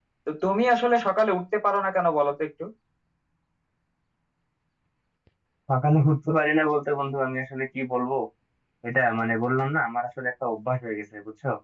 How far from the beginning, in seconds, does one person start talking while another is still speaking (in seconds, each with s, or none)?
none